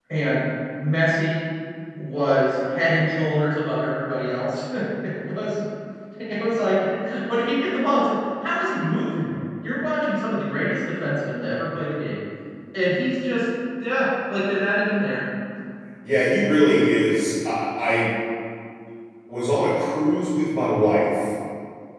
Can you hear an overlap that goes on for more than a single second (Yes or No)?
No